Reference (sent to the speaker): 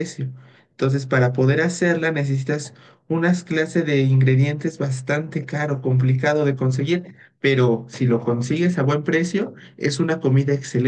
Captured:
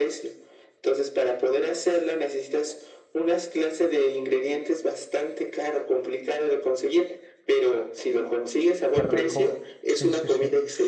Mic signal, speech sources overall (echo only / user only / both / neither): both